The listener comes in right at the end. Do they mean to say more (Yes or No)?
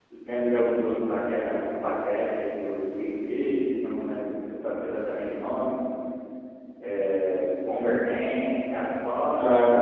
Yes